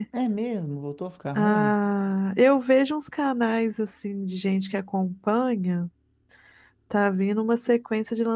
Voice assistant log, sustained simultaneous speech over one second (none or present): none